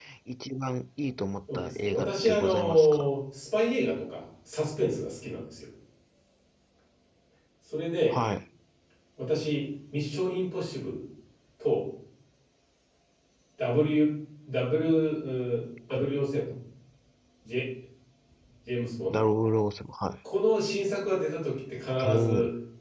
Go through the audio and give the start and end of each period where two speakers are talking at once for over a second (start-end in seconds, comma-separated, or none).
1.5-3.1